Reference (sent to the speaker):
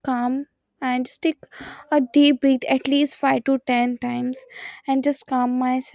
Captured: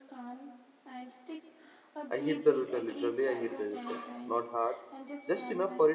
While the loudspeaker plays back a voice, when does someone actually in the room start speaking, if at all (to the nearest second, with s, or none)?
2 s